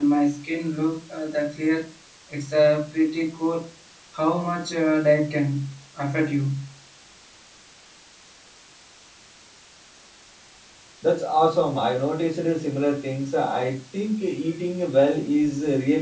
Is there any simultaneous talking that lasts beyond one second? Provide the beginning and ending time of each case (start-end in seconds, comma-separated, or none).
none